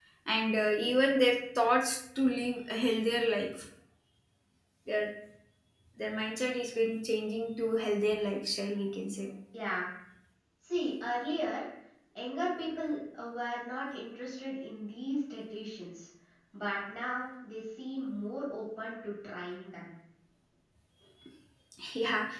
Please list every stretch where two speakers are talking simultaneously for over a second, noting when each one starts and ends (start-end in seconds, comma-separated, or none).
none